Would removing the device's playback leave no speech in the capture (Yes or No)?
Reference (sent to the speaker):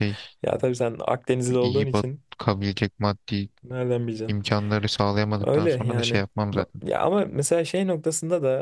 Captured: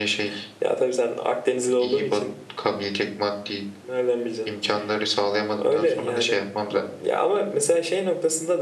Yes